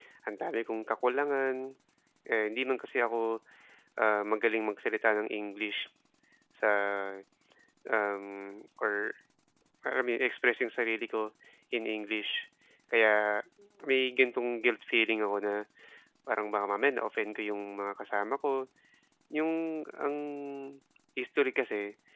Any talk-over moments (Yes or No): No